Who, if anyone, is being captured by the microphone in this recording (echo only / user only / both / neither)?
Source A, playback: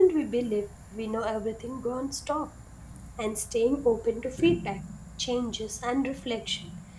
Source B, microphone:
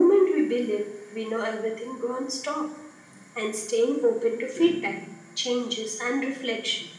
echo only